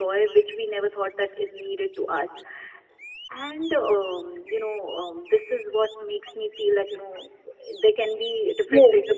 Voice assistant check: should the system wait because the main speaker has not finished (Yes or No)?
No